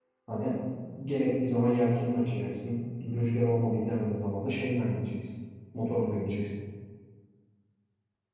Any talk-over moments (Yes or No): No